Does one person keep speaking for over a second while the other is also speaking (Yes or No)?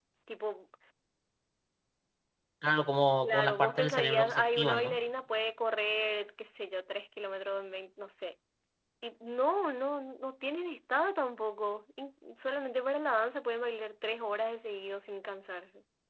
Yes